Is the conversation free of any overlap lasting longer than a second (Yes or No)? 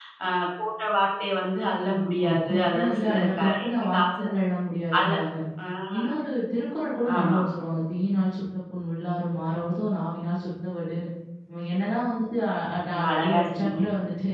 No